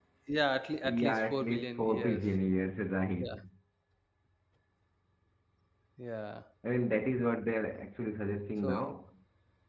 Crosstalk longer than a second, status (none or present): present